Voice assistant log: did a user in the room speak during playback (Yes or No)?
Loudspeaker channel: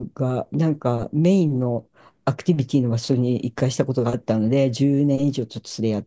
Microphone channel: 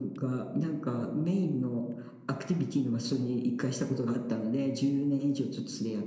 No